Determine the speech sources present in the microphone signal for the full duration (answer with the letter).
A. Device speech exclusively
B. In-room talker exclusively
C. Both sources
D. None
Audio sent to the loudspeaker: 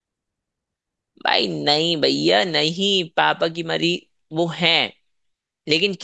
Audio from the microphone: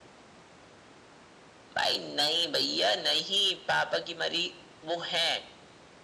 A